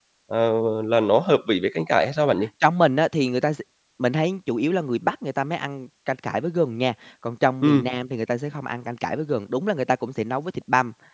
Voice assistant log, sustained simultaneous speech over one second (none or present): none